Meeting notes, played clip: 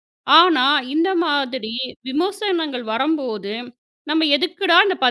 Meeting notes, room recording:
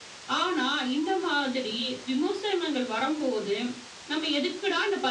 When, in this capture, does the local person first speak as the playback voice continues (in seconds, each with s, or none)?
none